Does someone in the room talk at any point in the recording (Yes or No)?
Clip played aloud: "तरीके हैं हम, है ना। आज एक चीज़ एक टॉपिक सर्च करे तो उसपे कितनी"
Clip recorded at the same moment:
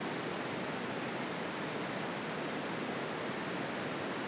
No